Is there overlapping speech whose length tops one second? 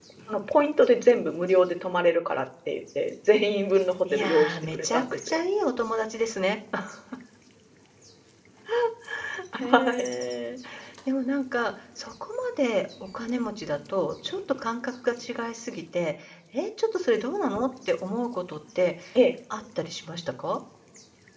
Yes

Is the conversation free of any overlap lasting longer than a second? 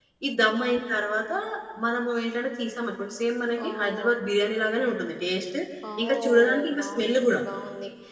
No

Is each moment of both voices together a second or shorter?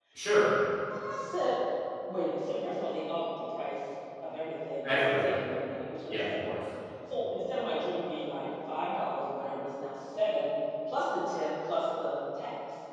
Yes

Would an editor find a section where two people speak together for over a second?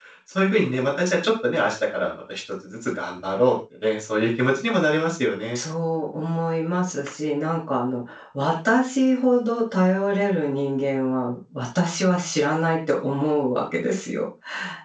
No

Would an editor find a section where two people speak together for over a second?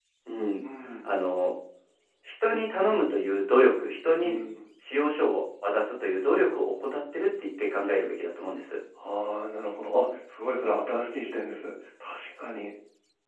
No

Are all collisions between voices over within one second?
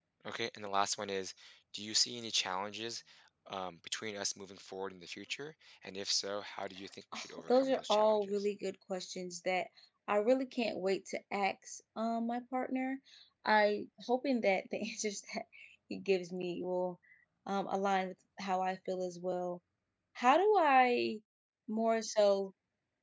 No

